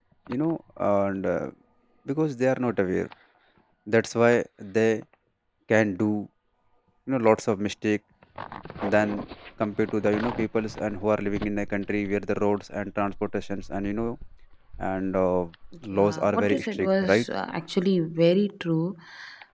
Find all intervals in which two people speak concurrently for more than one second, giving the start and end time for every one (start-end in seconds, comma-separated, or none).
16.0-17.2